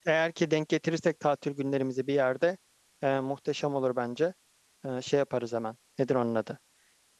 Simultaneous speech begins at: none

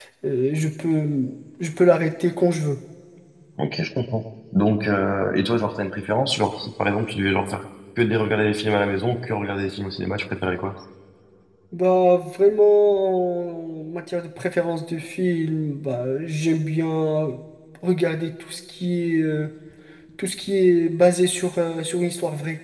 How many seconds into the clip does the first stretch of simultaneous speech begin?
none

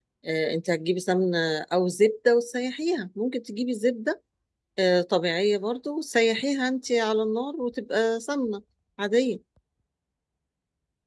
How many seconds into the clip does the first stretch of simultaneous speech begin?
none

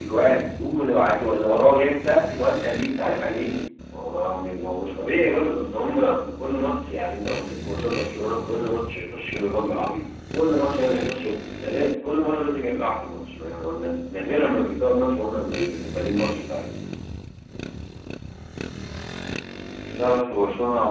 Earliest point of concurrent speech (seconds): none

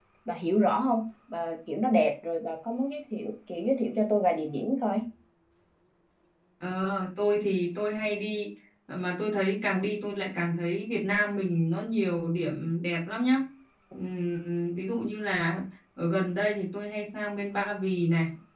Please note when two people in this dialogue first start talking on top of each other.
none

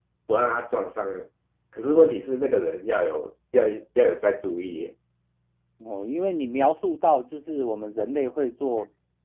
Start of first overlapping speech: none

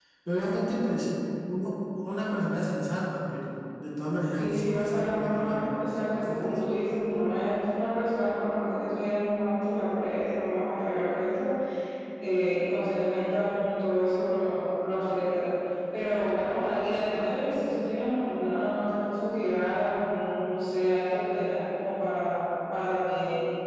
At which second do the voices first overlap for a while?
4.4 s

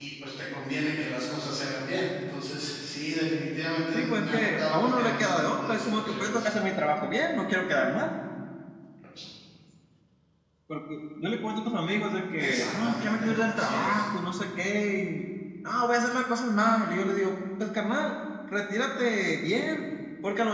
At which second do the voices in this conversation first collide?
3.9 s

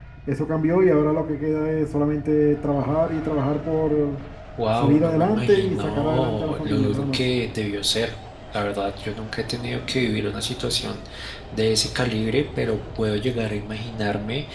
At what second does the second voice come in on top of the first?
4.8 s

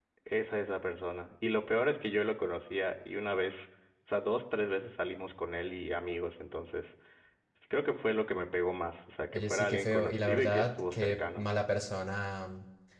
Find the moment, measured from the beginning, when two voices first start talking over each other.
9.3 s

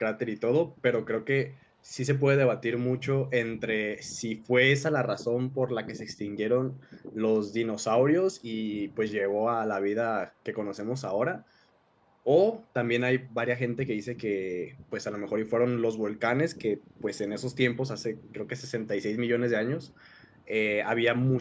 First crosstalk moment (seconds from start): none

